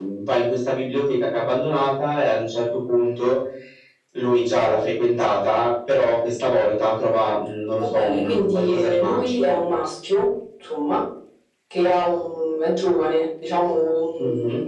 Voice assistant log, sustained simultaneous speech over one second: present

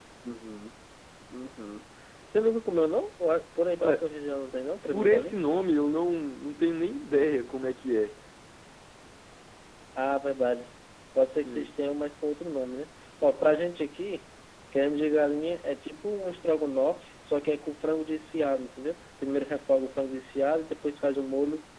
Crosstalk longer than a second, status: none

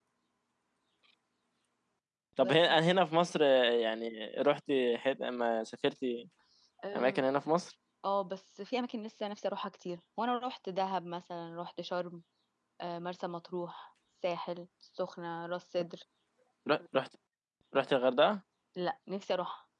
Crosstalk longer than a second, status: none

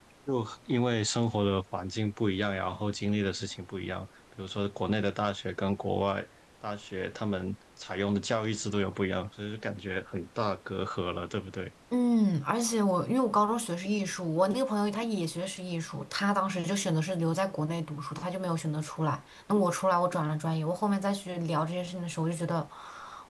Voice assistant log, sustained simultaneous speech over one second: none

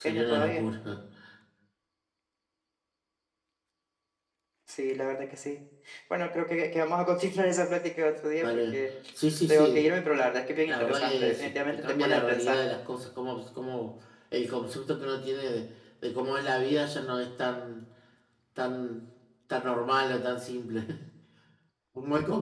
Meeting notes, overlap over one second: present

